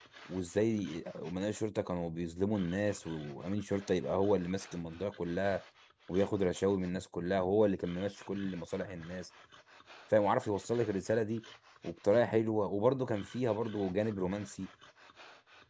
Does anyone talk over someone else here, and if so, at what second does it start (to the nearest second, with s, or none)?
none